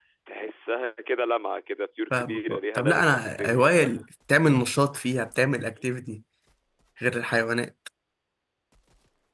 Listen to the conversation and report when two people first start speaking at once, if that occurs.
2.1 s

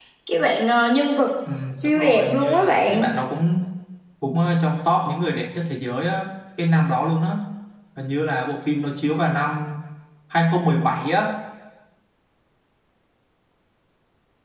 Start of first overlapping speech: 1.8 s

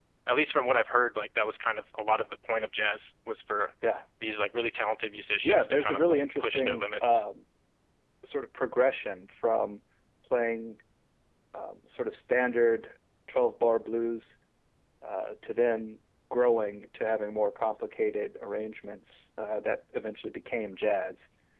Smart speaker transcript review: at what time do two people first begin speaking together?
5.4 s

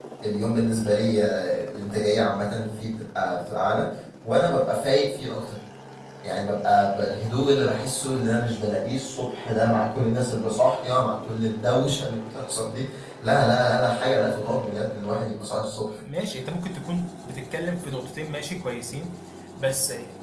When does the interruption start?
none

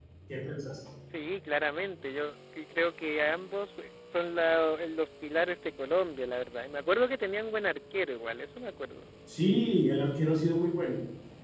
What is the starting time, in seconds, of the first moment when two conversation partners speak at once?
none

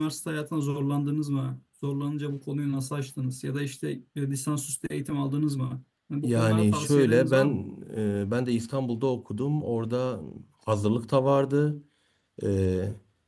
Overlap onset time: 6.2 s

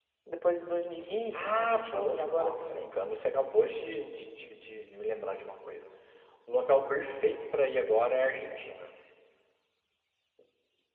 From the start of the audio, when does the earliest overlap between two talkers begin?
1.0 s

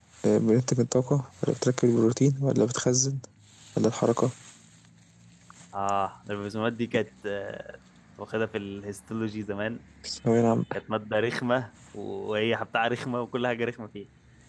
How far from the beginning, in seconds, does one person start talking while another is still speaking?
none

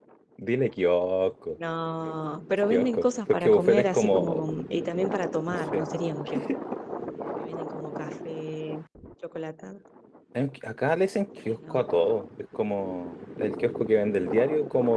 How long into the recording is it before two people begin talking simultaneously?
2.7 s

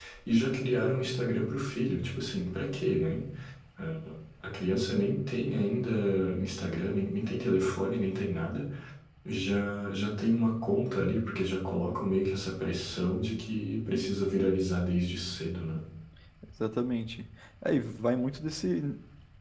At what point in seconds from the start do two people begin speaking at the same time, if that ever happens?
none

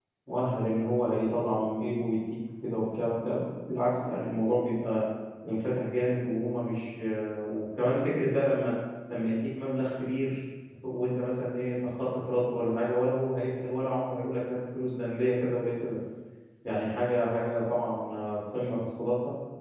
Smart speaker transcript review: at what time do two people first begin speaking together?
none

